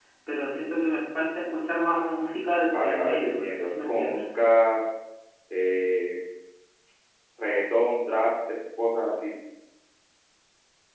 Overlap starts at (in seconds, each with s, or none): 2.6 s